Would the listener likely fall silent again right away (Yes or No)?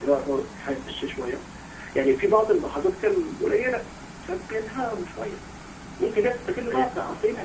Yes